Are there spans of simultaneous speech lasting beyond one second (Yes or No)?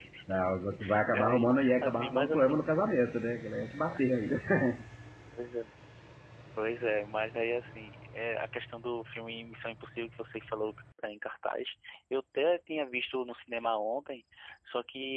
Yes